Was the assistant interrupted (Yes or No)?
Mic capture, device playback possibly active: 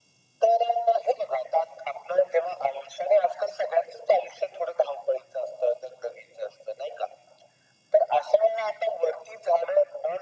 No